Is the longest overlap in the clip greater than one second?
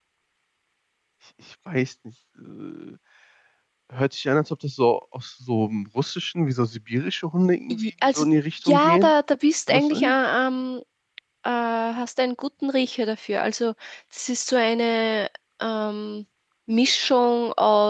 No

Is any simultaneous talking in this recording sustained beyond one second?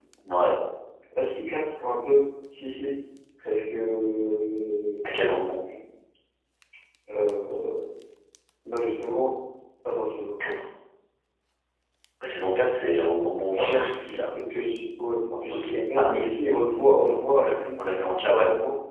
Yes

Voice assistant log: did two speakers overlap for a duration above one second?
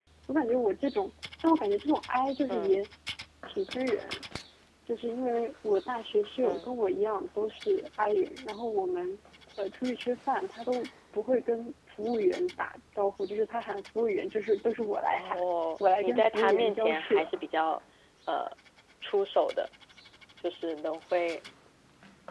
Yes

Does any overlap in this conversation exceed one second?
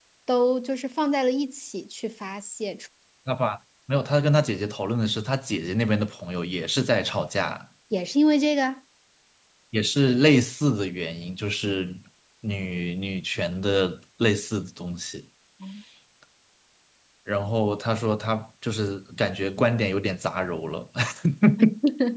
No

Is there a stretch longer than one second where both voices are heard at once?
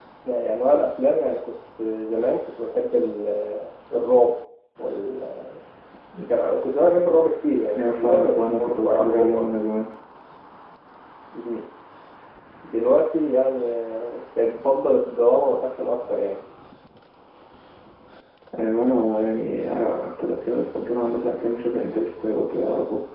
Yes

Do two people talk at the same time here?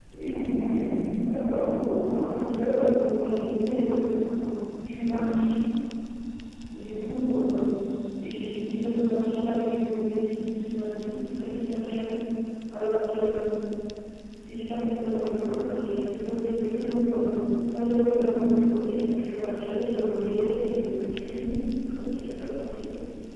No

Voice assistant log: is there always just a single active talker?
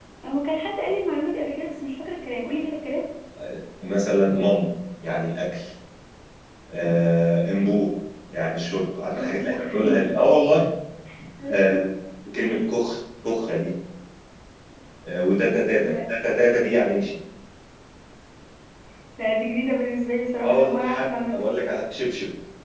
No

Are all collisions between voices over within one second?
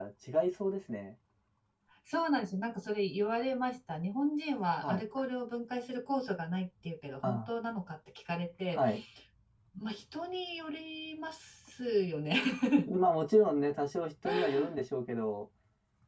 Yes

